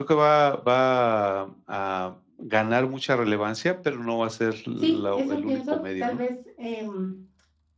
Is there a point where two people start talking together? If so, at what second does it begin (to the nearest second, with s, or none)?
5 s